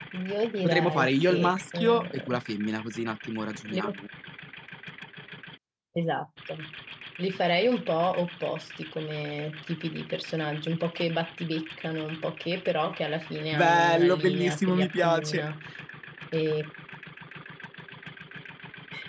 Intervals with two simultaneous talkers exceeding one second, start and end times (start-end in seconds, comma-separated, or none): 0.6-2.4, 13.5-15.4